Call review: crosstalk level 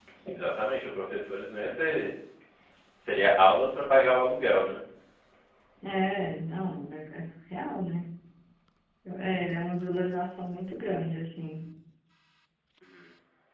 none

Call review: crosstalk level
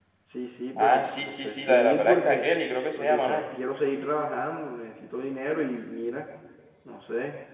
present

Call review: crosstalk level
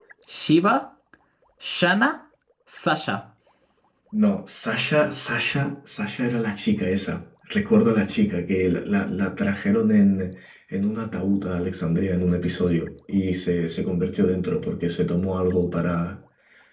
none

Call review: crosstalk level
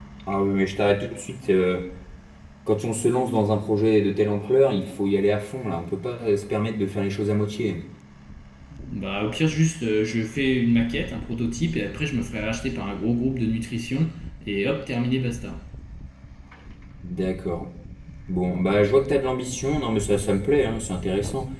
none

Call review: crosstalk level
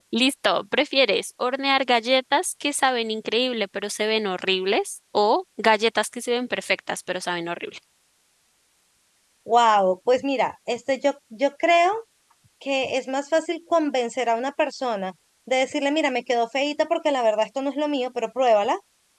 none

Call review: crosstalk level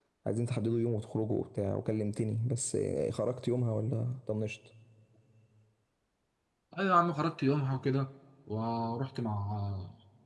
none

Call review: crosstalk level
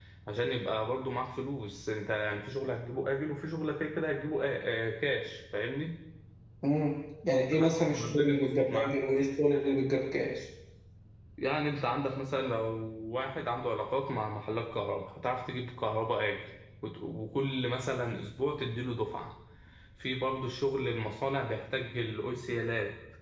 present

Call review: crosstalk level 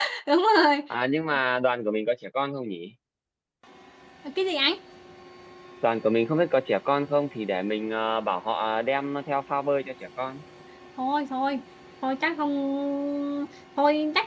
none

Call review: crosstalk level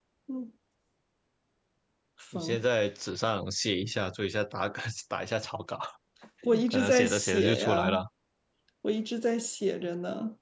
present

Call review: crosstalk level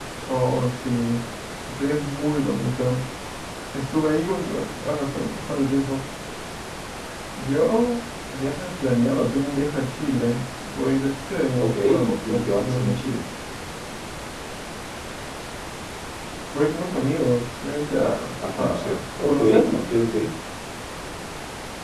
present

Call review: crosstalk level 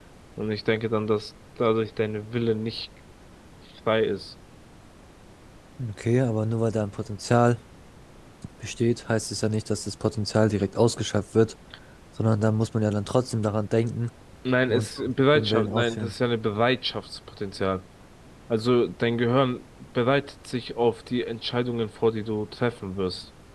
present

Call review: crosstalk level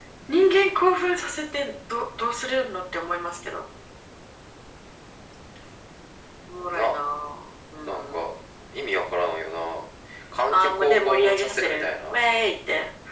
present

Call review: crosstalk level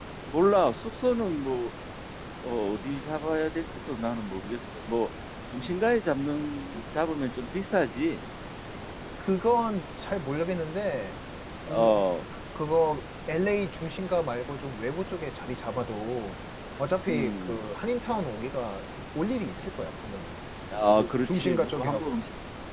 present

